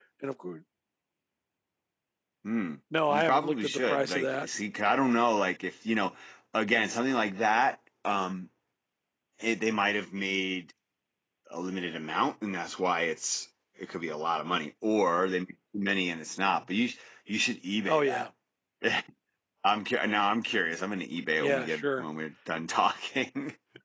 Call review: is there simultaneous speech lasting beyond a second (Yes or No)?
Yes